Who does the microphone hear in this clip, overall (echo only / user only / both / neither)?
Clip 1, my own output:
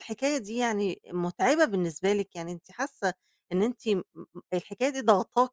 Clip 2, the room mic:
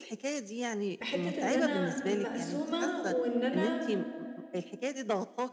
both